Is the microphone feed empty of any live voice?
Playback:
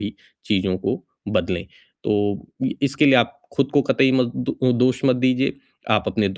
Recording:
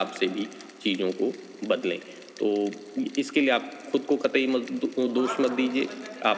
No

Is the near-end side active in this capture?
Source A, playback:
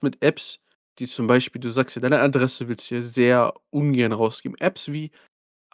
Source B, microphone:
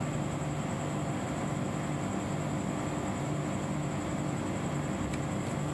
No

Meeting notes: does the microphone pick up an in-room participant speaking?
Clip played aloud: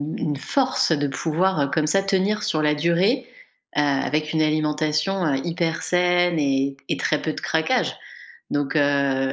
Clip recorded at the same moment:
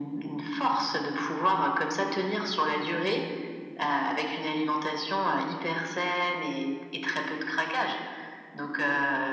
No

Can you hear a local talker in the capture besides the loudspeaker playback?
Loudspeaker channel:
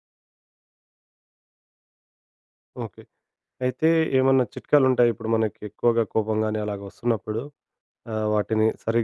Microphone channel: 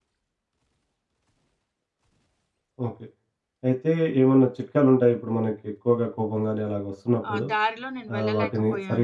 Yes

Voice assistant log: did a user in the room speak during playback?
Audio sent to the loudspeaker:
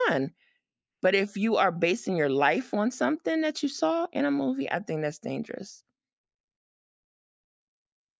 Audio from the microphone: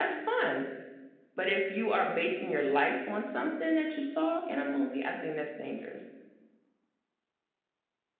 No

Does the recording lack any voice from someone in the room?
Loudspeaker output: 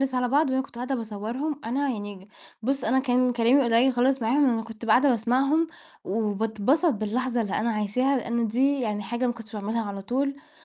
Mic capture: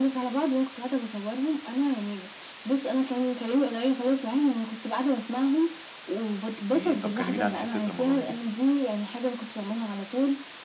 No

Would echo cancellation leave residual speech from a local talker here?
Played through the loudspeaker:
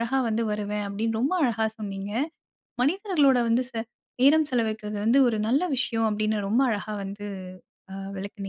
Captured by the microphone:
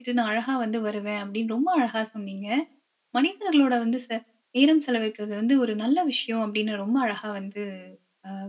No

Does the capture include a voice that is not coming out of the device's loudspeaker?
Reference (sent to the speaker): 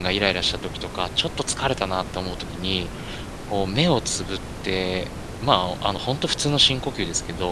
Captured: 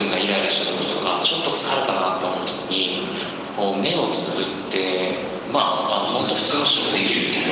Yes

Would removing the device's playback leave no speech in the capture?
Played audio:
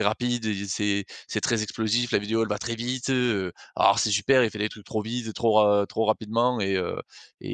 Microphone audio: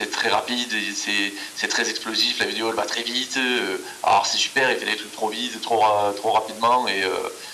Yes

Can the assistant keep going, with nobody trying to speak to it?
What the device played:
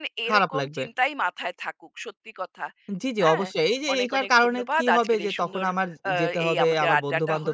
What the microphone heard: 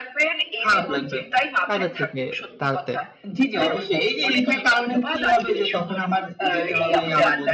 No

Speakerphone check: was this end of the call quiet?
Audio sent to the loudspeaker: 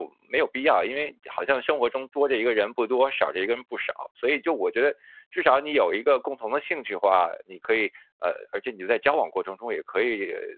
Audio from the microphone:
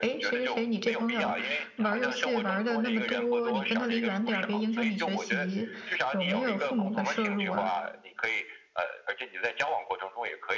No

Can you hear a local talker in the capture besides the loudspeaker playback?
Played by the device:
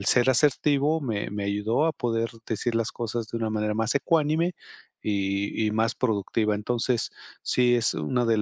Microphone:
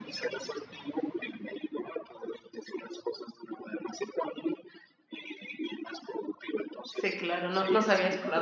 Yes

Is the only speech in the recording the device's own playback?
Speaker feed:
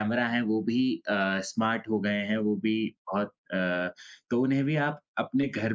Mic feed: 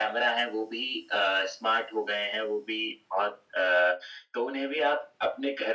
Yes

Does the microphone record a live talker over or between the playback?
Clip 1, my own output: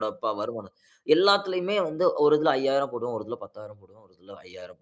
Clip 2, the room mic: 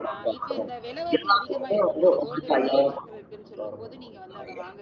Yes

